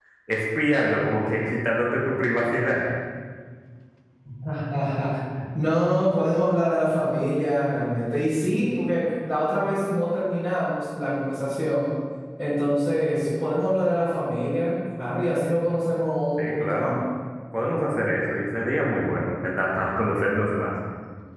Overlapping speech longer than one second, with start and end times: none

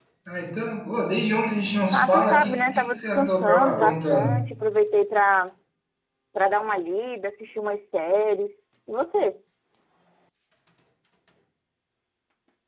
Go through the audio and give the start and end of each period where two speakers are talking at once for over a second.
1.9-4.4

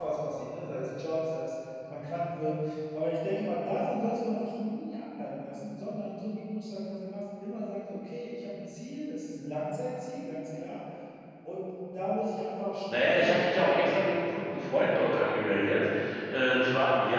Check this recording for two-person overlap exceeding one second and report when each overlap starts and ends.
12.9-14.2

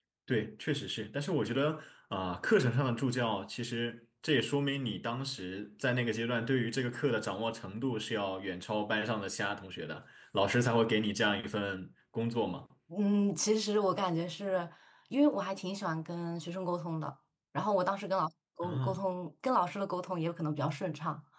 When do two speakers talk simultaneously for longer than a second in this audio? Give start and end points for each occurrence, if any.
none

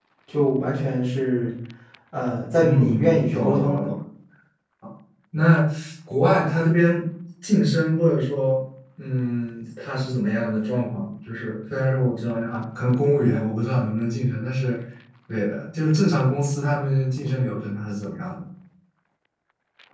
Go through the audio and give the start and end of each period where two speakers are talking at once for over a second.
2.5-3.8

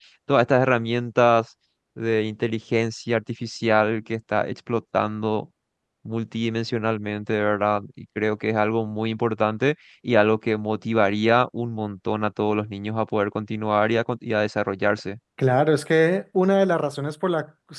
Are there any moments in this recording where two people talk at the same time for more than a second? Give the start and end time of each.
none

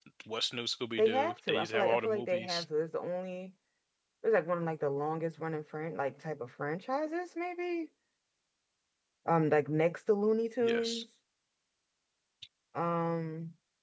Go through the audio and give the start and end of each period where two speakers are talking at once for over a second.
1.0-2.6

